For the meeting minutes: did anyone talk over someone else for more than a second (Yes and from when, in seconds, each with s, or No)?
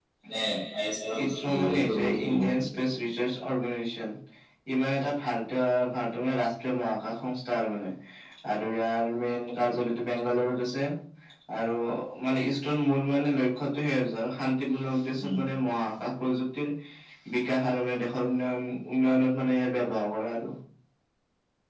Yes, from 1.2 s